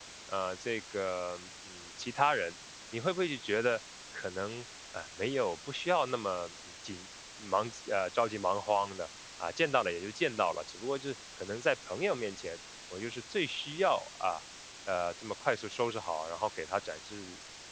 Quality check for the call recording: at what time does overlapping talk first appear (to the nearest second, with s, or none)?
none